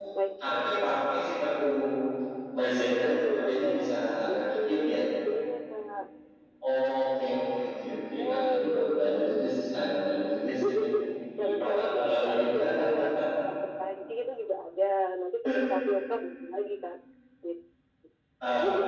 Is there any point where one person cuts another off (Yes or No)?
Yes